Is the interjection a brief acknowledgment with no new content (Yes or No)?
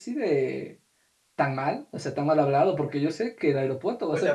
No